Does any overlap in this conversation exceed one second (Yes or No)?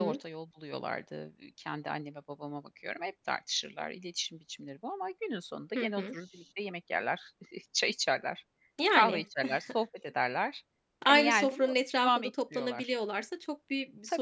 Yes